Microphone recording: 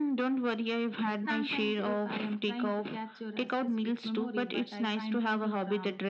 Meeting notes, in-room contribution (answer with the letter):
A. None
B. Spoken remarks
A